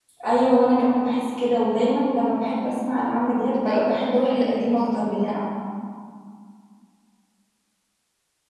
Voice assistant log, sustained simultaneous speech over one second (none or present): present